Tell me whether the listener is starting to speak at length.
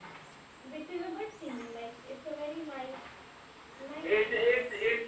Yes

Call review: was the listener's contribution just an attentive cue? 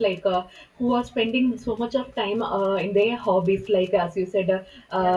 Yes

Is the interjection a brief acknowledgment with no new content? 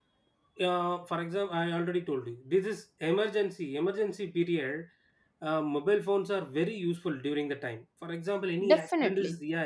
Yes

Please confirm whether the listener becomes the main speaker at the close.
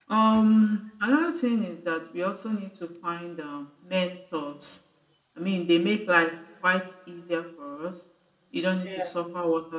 No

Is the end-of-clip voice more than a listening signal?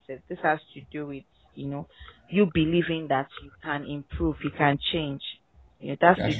No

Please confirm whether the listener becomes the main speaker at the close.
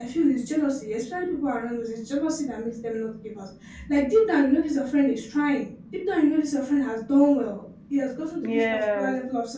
No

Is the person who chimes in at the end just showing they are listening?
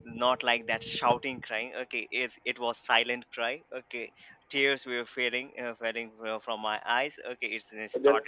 No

